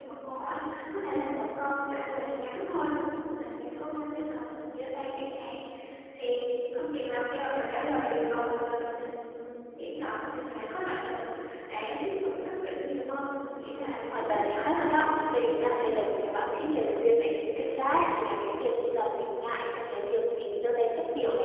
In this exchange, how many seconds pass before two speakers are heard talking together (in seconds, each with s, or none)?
13.7 s